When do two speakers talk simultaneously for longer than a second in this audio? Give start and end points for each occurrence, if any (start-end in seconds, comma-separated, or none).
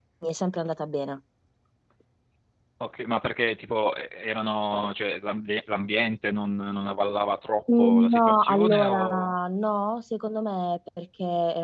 7.8-9.3